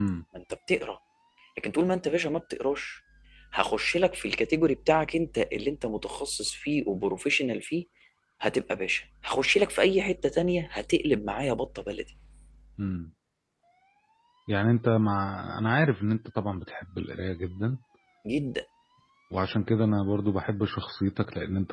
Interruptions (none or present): none